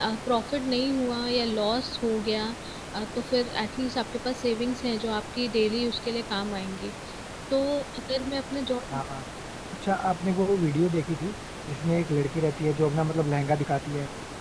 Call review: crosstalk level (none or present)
none